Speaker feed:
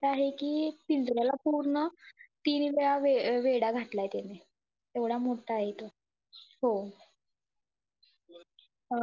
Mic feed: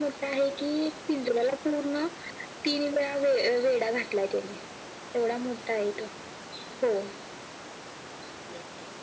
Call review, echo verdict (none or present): present